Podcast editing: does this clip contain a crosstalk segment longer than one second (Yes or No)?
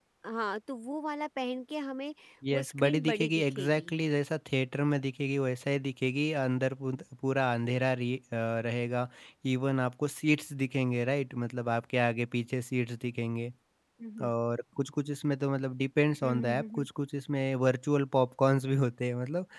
Yes